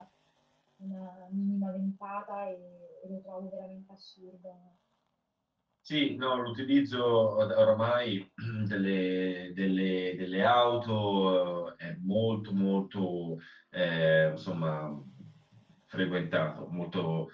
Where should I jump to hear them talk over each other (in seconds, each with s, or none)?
none